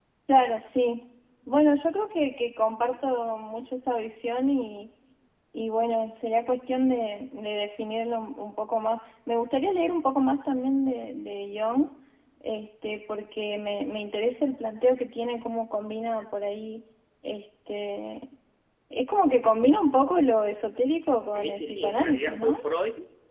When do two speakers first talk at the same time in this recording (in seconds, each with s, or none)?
21.3 s